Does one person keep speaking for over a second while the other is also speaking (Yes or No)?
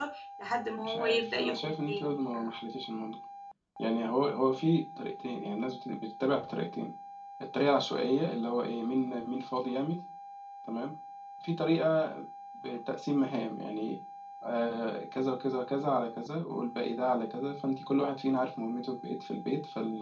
Yes